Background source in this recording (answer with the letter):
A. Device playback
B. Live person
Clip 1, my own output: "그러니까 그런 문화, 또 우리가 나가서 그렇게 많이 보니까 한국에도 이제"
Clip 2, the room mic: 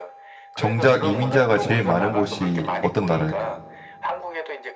A